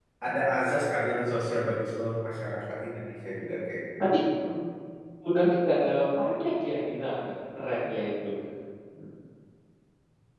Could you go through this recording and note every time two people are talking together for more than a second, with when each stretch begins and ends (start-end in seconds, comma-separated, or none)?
none